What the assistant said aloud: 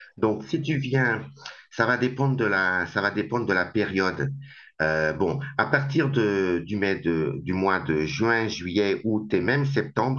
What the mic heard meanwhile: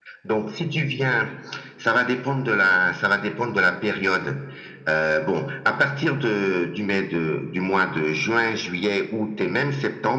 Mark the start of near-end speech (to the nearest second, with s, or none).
none